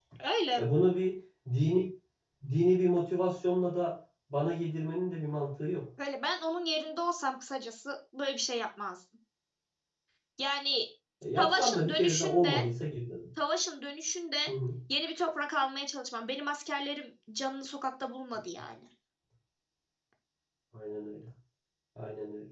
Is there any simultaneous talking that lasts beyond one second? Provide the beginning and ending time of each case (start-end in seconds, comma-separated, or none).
11.4-12.7